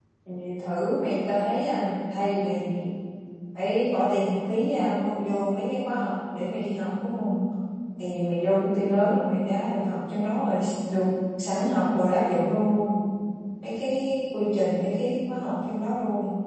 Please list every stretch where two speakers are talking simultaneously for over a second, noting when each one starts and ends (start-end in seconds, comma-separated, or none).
none